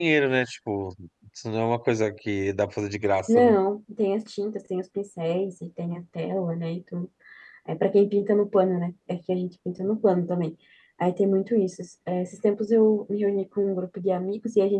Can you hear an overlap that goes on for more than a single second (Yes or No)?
No